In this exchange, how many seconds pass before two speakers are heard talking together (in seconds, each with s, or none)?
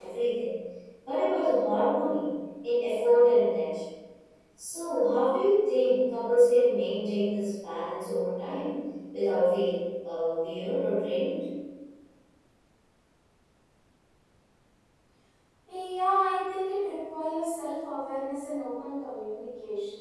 none